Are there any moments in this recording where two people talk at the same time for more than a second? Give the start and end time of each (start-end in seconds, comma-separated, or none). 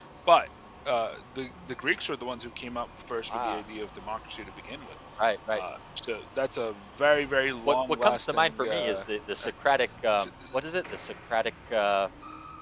7.7-9.0